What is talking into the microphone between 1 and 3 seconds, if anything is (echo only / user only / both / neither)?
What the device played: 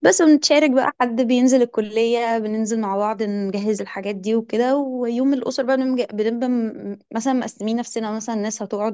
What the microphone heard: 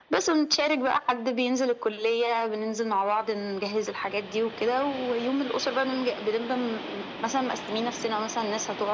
echo only